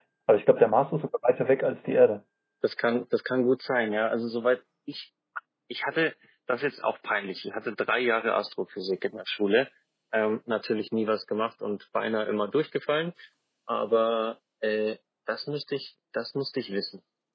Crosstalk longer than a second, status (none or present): none